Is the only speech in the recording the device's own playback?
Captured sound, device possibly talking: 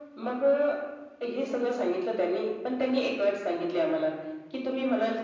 Yes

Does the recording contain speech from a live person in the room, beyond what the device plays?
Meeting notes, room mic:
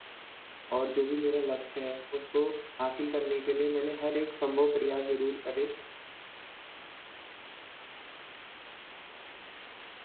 Yes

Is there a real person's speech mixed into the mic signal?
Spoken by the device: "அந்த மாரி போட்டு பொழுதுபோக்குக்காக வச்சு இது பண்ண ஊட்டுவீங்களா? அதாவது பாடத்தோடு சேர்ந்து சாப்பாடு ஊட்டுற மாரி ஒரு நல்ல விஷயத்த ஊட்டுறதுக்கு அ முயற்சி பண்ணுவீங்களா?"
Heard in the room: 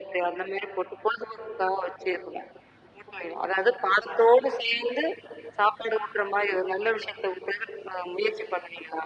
No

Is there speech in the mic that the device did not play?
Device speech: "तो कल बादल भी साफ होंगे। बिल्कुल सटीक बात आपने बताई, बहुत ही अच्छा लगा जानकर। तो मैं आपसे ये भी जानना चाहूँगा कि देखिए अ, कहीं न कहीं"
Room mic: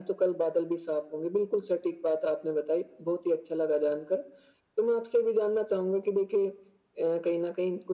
No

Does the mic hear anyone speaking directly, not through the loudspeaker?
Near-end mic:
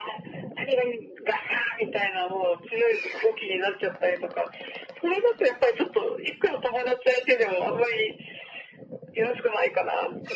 No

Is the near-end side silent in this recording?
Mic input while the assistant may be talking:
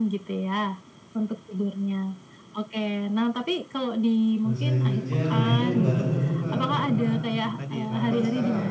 No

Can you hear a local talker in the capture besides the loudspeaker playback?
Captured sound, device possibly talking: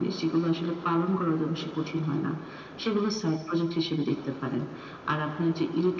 No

